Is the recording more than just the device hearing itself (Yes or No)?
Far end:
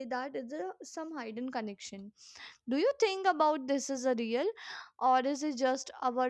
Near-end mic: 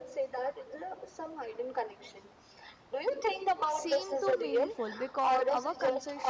Yes